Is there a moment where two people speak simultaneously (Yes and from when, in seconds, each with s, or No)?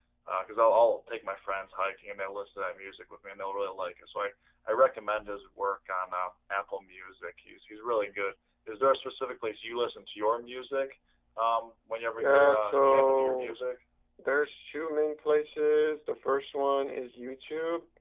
Yes, from 12.1 s